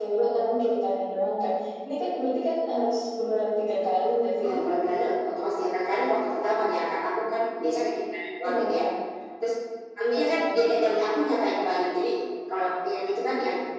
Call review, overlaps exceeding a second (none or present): none